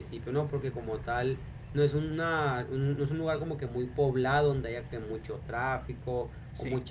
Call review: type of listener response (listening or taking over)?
listening